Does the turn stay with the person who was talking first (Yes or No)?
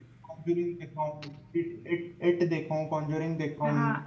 No